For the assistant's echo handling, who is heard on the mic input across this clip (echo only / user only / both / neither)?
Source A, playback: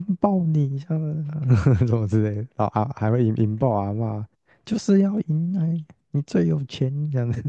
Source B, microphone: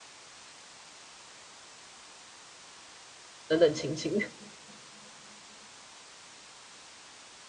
user only